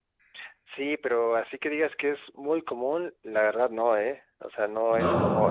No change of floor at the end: Yes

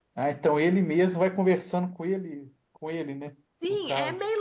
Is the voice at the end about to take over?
Yes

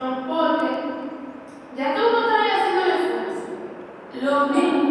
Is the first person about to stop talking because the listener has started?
No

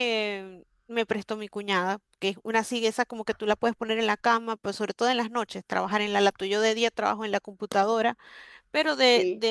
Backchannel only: Yes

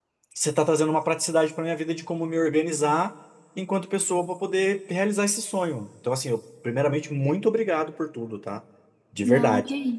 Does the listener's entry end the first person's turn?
Yes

